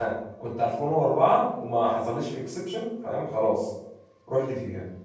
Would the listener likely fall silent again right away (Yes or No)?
No